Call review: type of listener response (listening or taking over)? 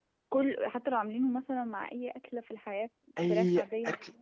taking over